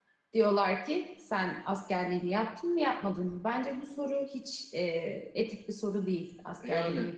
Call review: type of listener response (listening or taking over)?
taking over